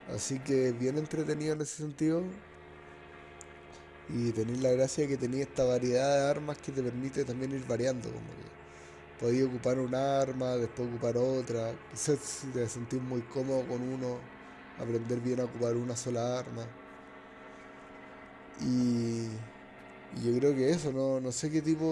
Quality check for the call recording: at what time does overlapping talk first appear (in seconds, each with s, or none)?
none